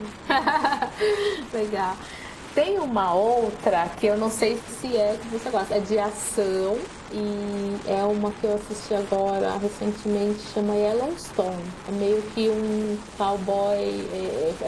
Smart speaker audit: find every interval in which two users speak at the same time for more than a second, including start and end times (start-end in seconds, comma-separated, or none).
none